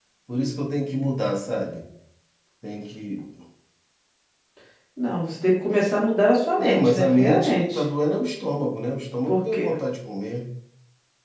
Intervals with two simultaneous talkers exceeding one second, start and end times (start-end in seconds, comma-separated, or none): 6.6-7.8